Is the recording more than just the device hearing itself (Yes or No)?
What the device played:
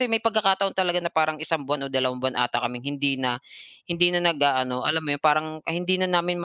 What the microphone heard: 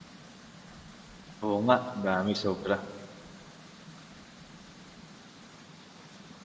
Yes